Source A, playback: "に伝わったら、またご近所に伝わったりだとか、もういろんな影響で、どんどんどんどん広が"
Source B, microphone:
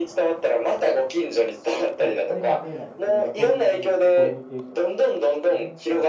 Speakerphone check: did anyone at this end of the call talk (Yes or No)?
Yes